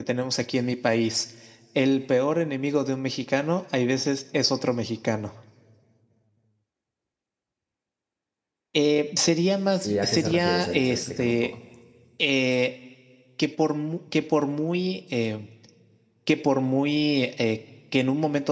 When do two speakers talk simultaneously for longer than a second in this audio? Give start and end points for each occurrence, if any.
9.8-11.5

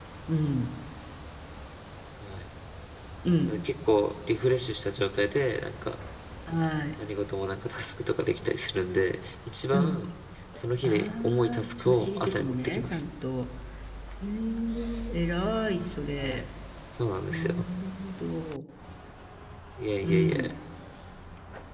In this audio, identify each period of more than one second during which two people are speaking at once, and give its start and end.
10.8-13.0

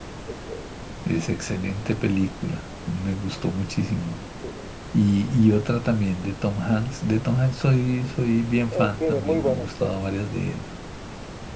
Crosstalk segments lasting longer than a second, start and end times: 8.7-10.0

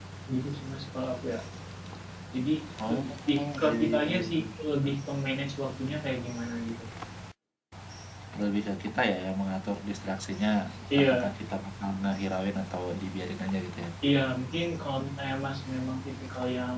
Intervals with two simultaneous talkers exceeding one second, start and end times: 2.9-4.4

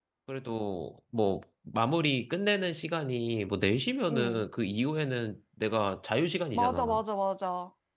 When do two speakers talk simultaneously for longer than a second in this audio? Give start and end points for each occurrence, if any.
none

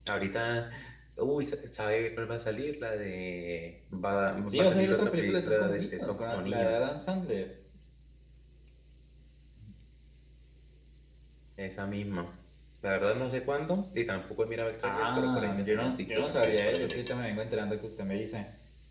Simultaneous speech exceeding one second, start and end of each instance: 4.5-6.8, 14.8-17.0

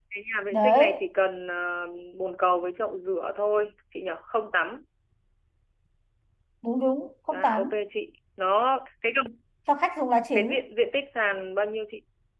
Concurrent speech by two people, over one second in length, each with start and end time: none

